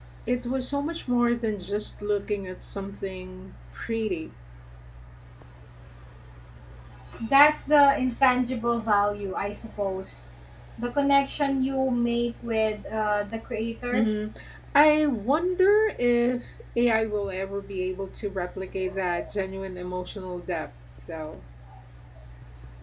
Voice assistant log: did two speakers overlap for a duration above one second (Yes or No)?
No